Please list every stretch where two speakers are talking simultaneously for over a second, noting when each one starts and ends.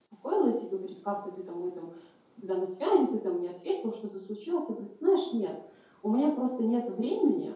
none

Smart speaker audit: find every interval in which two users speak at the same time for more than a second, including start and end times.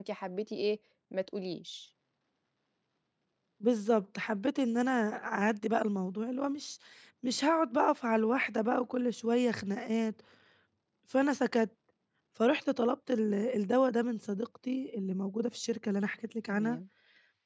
none

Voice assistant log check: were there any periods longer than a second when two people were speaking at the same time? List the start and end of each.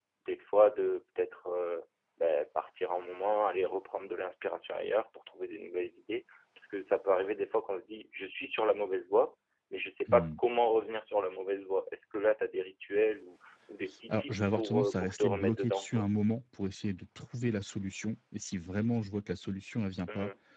14.1-16.0

